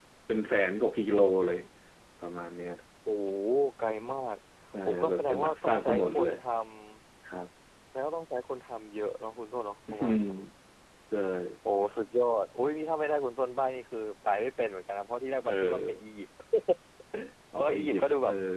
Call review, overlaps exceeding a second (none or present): present